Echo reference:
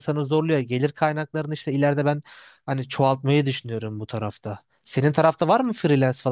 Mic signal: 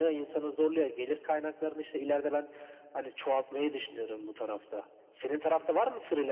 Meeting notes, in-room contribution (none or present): none